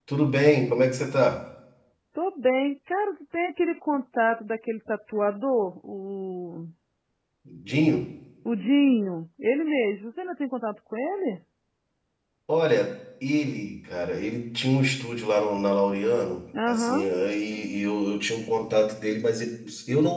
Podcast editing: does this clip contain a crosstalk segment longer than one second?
No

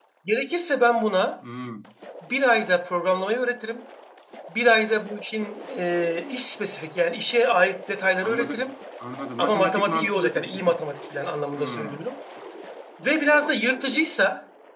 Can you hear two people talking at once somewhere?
Yes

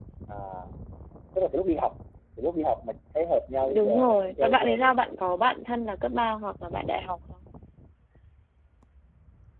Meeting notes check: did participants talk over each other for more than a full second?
Yes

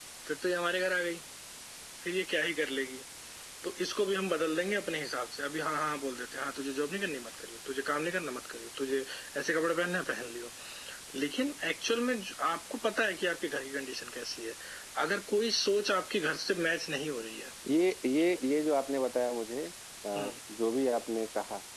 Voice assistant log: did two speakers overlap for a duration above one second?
No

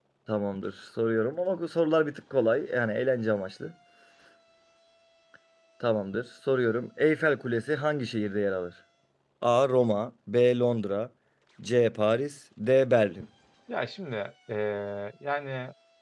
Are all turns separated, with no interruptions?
Yes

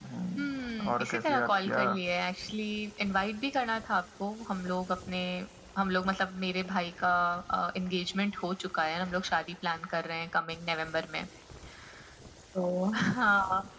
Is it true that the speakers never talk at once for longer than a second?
No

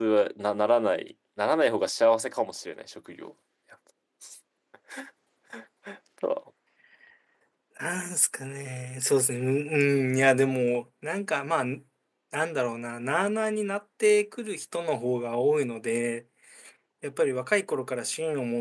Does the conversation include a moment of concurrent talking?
No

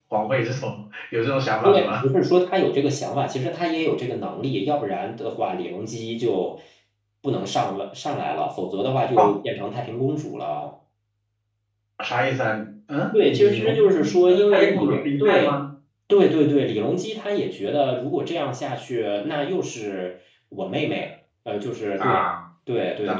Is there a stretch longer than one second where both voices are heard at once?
Yes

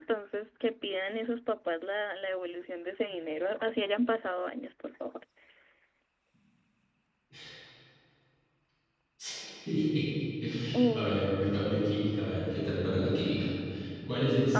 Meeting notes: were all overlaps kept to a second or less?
Yes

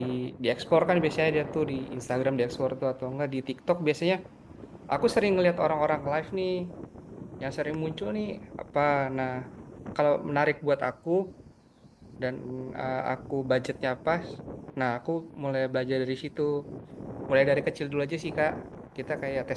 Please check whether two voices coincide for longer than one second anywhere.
No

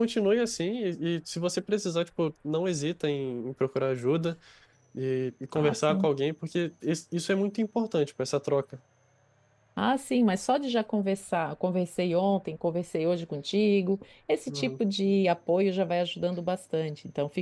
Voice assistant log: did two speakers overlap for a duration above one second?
No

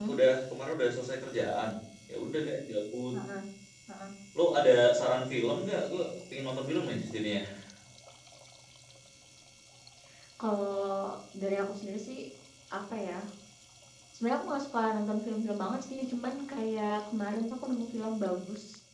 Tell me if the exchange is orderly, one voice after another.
Yes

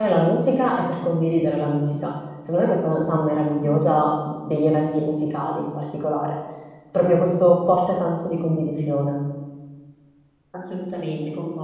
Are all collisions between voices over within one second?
Yes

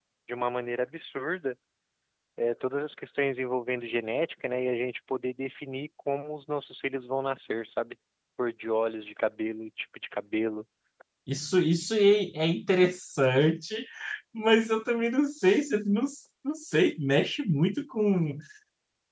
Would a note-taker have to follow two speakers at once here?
No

